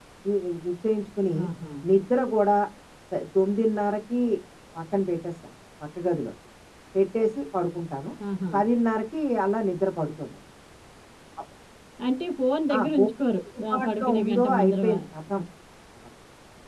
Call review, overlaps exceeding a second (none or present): present